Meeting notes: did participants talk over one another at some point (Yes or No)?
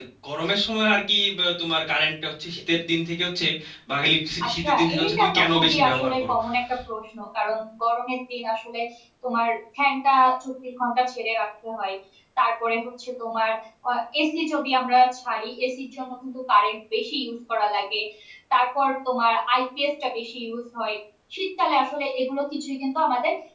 Yes